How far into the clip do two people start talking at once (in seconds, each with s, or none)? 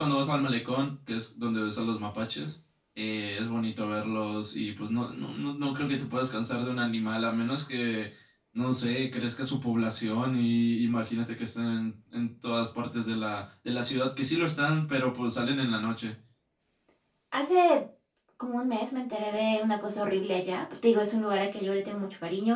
none